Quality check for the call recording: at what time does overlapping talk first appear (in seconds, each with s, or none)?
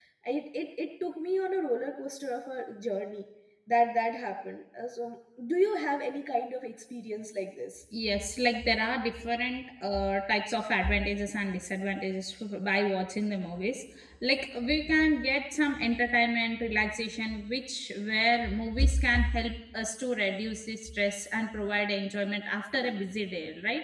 none